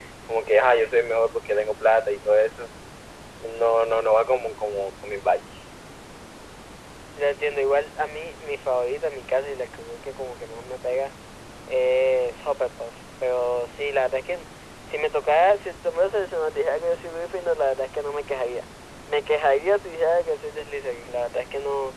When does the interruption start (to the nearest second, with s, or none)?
none